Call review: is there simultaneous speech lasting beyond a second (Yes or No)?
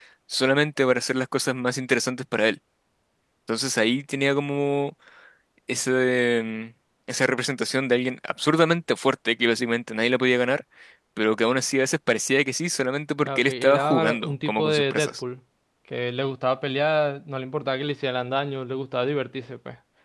Yes